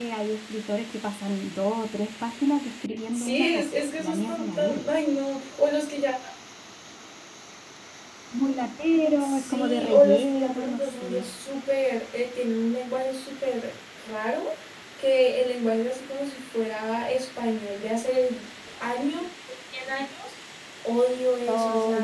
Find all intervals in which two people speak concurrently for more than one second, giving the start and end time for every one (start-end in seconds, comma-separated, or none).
3.1-4.8, 9.2-11.3